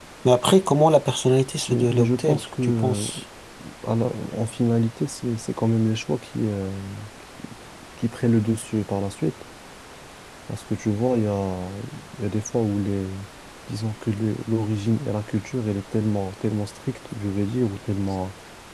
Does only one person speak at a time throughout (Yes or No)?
No